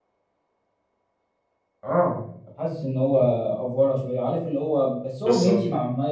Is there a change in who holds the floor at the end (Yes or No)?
No